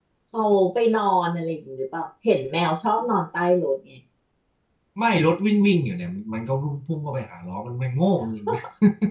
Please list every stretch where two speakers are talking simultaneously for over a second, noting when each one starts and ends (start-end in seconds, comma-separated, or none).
none